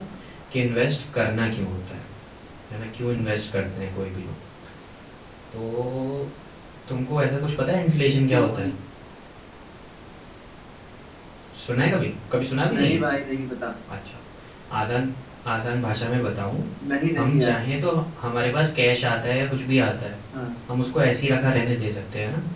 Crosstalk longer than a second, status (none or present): none